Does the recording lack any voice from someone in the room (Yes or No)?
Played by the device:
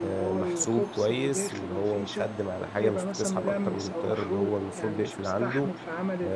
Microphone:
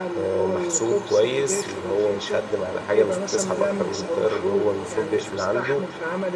Yes